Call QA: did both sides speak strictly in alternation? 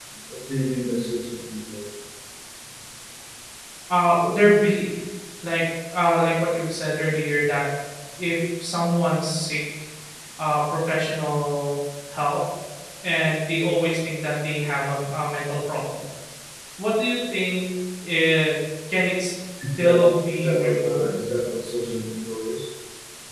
No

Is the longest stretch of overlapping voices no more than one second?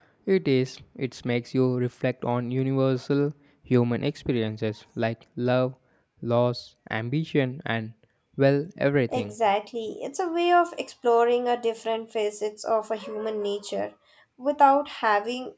Yes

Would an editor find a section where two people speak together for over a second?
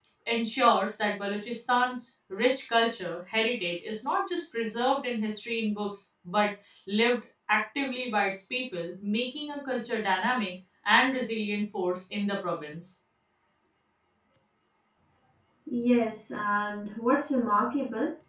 No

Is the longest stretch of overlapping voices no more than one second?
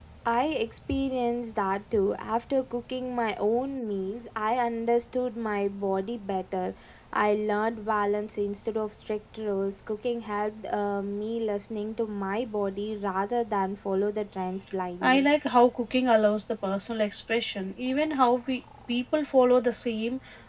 Yes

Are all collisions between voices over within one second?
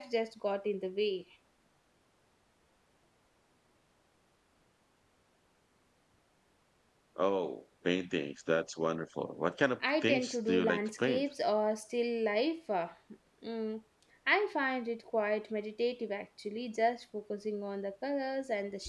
No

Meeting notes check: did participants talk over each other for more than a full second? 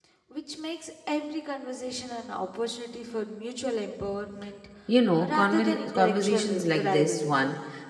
Yes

